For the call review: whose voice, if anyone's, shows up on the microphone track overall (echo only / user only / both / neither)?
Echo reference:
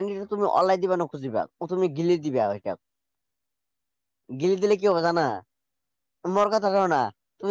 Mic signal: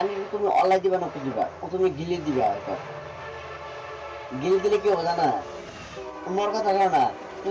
echo only